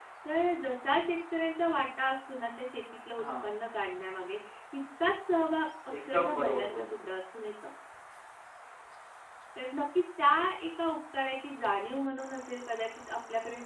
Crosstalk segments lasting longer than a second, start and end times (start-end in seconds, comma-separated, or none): 6.0-7.2